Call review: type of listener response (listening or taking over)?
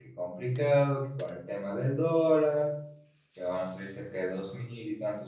listening